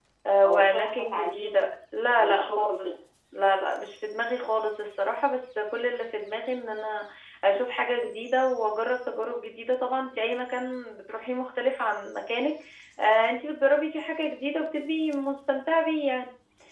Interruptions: present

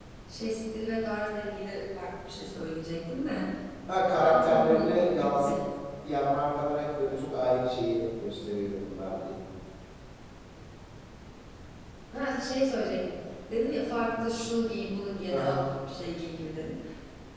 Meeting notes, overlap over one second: present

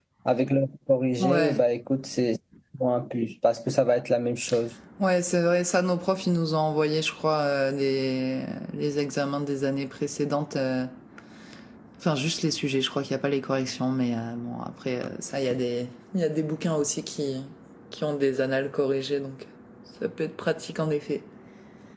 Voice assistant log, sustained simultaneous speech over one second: none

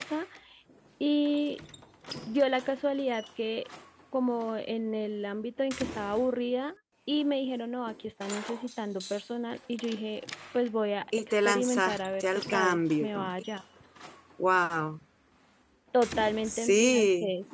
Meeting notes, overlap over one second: present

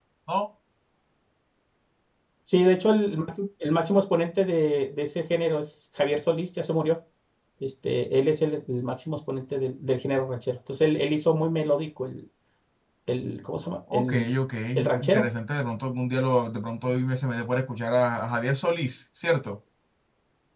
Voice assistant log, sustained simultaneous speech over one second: none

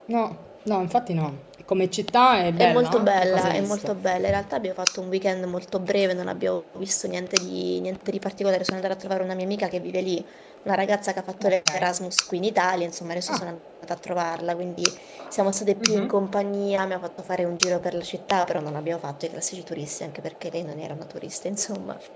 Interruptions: present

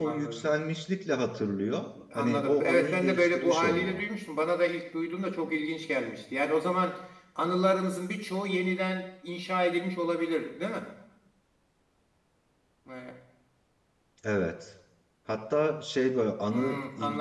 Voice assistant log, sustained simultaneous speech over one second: present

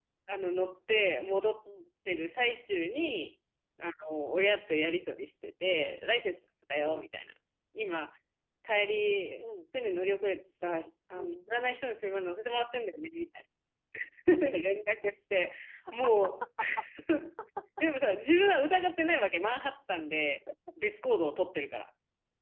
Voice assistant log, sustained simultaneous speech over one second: none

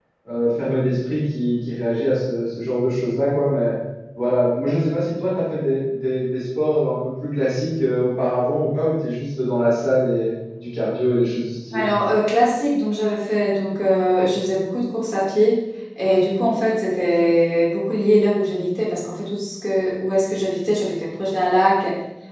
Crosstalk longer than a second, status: none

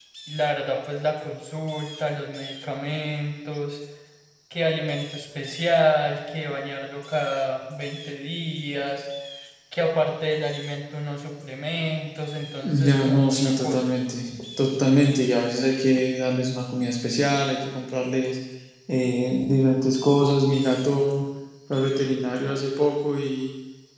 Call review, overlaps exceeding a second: present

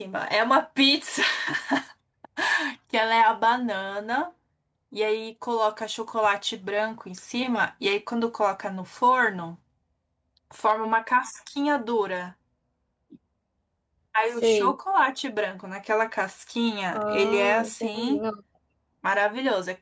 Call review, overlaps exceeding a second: present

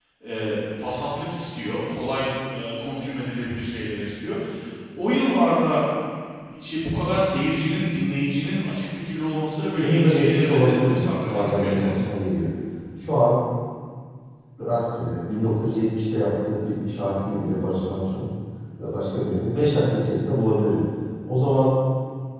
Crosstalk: present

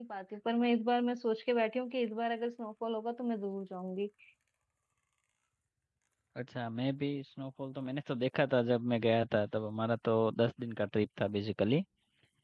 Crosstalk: none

